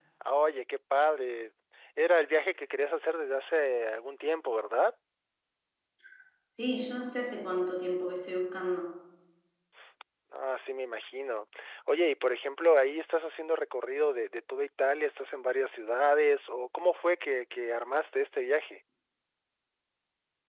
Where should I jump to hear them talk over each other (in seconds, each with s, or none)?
none